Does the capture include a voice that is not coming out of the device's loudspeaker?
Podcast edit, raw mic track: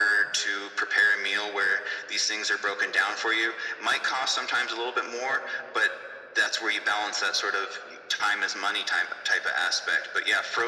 No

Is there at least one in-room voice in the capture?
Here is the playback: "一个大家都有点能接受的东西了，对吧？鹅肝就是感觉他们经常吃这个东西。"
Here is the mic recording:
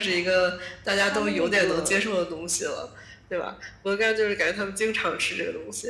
Yes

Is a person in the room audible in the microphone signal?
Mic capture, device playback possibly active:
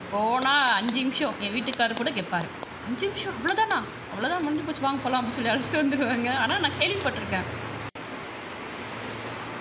Yes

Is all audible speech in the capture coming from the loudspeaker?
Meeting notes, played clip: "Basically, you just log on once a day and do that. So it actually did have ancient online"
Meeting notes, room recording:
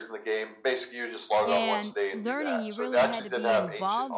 No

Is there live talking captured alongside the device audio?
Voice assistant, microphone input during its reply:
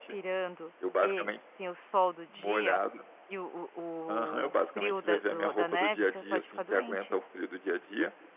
Yes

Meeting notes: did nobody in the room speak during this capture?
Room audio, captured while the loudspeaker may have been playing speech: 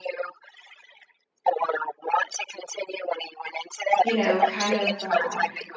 No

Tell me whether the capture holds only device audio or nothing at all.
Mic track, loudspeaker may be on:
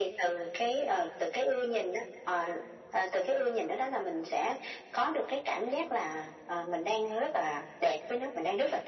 Yes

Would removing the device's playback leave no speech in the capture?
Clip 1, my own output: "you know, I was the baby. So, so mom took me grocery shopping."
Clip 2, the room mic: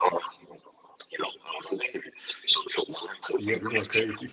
No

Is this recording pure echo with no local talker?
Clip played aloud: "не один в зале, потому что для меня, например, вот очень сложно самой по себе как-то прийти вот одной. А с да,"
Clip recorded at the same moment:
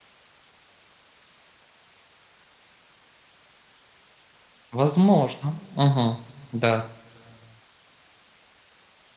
No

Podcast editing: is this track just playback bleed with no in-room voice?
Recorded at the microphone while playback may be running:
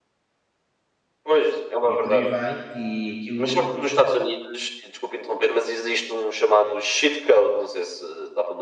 No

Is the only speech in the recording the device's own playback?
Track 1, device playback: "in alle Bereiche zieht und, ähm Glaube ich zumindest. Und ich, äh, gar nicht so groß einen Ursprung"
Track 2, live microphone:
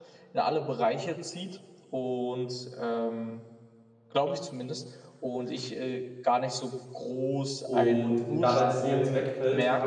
No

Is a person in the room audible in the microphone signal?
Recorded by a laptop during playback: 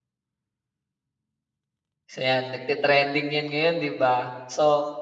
Yes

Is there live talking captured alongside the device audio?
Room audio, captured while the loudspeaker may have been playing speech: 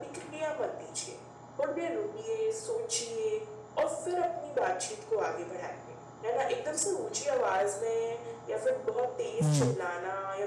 Yes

